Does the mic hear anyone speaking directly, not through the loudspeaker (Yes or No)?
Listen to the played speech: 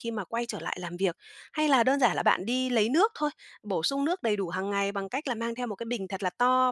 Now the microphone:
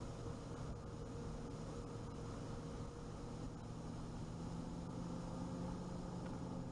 No